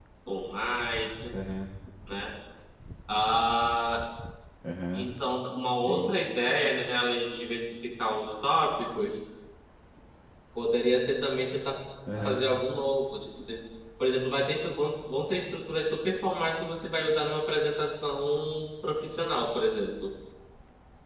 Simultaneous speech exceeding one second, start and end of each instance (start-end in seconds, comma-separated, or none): none